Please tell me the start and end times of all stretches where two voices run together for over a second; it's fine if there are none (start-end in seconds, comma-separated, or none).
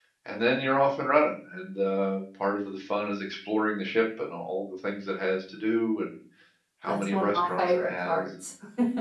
6.9-8.3